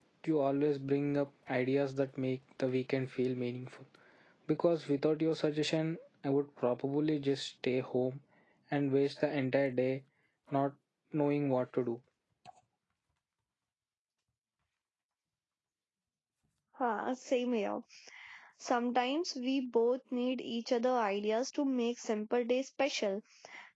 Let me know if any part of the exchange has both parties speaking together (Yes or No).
No